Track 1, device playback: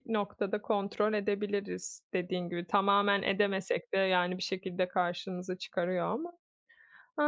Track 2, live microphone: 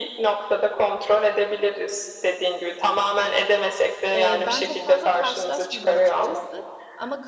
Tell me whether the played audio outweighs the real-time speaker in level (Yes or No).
Yes